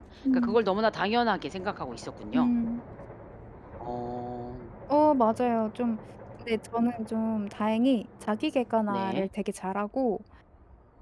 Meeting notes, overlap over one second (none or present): none